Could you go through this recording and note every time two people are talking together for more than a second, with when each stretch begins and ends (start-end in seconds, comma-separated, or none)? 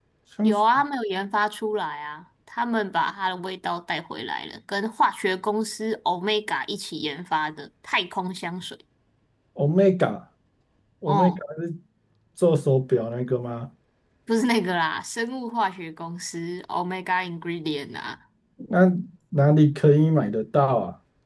none